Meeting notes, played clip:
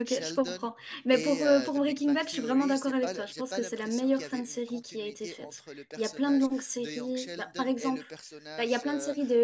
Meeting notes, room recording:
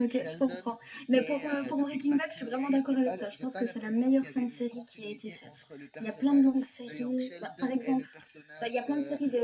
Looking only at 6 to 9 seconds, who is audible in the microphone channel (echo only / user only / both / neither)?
echo only